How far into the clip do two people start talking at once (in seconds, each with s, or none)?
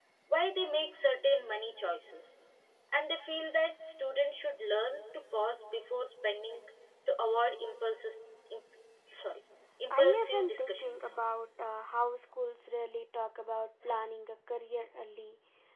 9.9 s